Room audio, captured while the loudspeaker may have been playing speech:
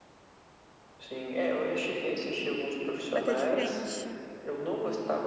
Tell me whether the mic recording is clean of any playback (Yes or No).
No